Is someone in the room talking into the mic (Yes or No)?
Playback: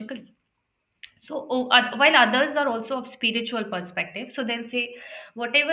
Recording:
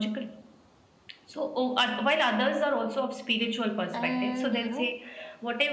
Yes